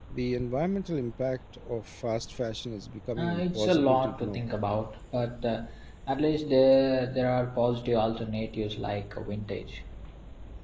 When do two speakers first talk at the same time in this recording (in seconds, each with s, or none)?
3.2 s